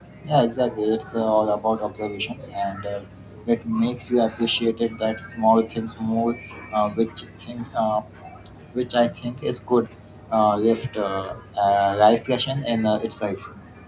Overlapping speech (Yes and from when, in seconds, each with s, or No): No